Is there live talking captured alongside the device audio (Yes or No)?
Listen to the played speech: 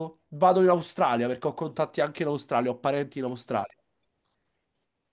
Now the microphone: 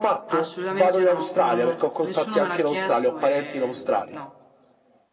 Yes